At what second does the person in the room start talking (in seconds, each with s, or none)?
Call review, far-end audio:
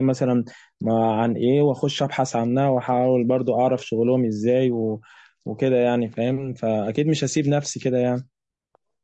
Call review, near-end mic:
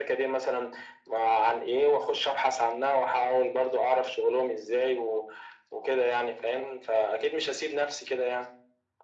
none